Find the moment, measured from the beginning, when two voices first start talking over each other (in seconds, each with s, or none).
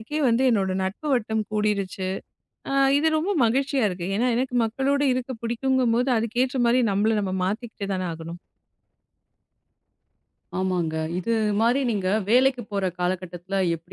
none